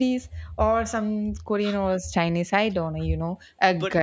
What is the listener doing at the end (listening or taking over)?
listening